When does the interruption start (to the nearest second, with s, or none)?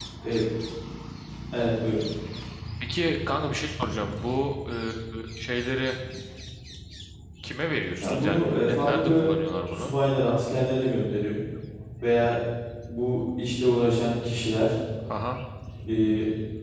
8 s